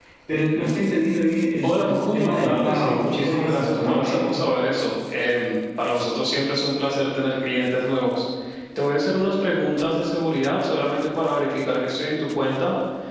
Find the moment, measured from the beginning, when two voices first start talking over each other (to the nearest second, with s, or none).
2 s